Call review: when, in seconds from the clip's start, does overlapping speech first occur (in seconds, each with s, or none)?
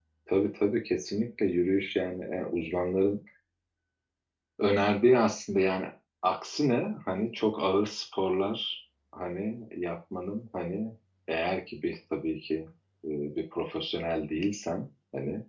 none